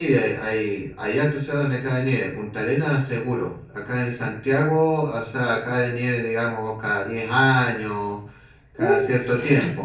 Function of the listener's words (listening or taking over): listening